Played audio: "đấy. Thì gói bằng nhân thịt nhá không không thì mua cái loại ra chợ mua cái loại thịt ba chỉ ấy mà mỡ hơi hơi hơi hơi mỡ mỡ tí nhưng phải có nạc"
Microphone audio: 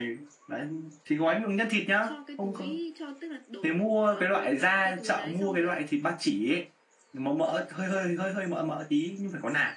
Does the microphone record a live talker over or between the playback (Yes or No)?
Yes